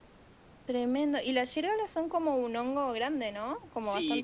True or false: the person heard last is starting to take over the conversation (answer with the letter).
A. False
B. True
B